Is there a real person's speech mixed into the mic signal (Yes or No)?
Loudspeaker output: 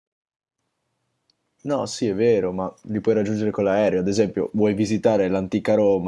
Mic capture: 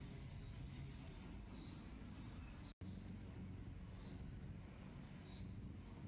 No